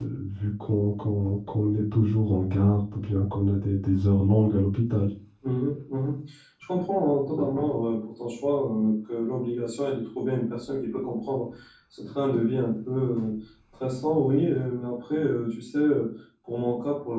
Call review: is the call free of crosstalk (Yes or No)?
Yes